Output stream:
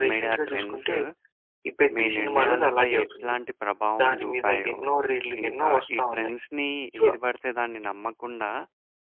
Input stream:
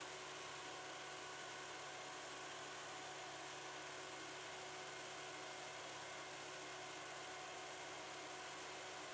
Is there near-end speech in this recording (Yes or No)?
No